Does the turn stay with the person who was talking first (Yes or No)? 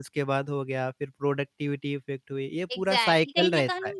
No